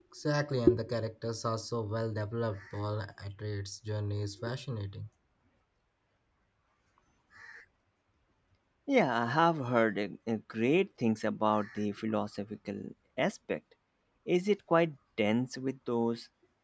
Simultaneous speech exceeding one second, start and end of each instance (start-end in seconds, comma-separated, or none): none